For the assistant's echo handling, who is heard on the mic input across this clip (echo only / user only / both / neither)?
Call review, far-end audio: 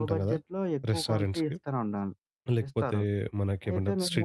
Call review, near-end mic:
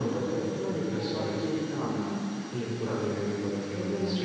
echo only